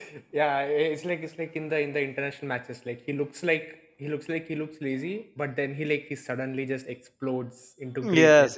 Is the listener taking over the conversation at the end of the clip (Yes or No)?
Yes